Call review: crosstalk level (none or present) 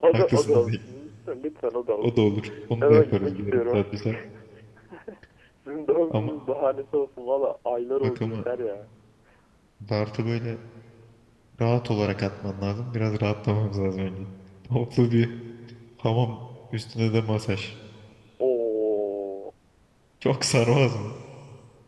present